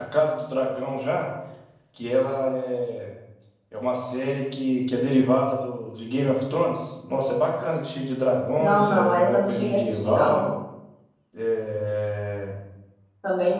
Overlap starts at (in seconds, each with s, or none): 8.6 s